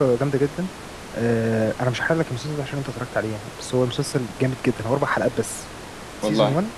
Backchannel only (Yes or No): Yes